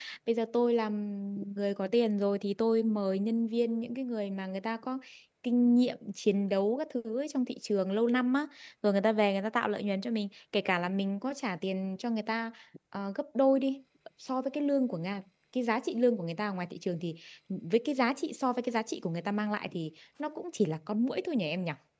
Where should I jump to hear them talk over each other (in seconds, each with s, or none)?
none